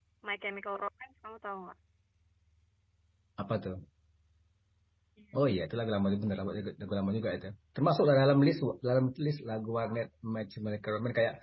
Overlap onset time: none

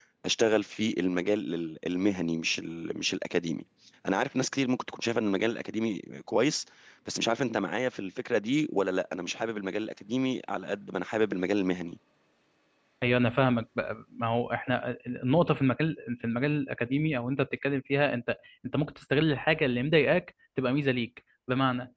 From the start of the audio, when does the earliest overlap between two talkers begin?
none

